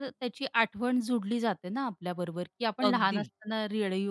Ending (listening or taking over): listening